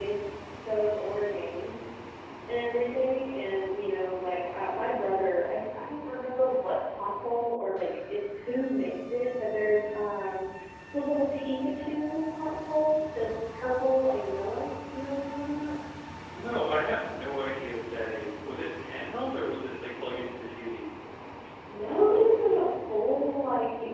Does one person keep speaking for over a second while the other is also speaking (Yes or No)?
No